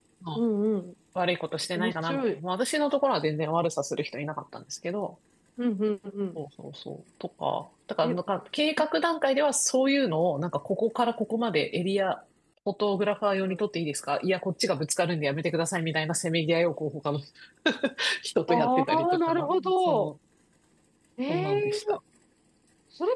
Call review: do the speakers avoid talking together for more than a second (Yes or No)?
No